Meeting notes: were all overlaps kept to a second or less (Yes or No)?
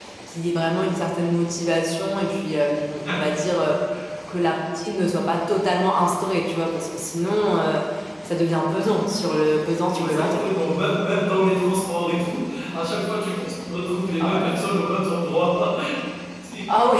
Yes